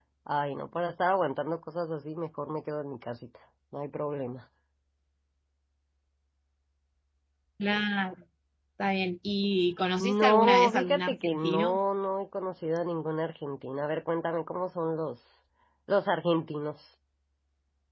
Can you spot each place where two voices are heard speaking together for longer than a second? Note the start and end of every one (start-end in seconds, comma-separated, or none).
10.0-11.8